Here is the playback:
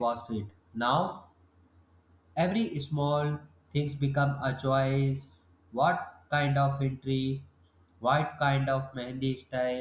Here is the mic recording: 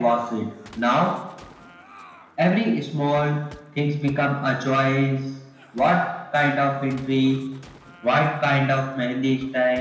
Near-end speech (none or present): none